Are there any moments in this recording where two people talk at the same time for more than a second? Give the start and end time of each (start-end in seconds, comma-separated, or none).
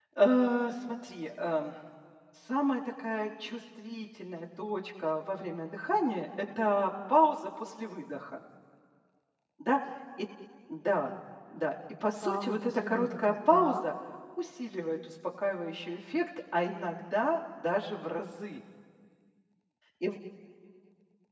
12.2-13.8